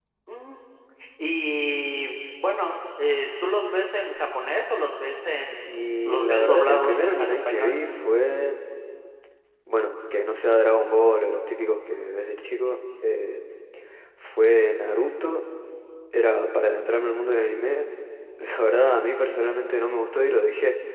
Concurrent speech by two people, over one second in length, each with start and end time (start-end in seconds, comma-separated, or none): 5.6-7.7